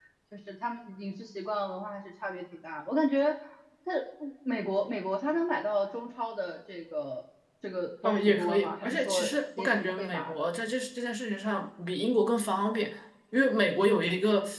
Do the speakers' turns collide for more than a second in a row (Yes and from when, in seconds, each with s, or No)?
Yes, from 8.0 s